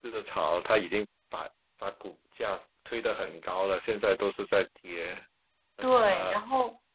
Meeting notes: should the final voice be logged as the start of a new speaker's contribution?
Yes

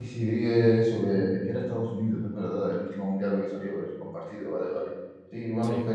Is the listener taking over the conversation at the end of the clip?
No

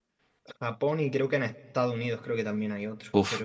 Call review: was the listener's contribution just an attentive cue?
No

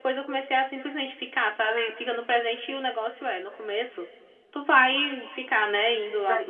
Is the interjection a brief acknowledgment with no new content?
Yes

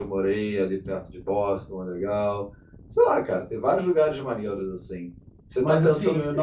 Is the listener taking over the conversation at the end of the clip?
Yes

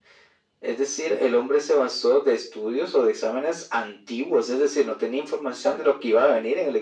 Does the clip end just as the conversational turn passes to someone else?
No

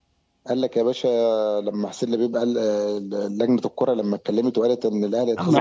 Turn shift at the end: Yes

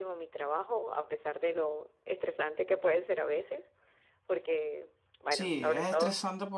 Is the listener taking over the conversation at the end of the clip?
Yes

